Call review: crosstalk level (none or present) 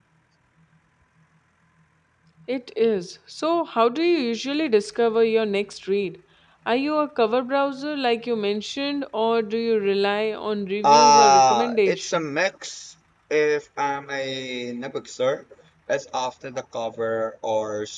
present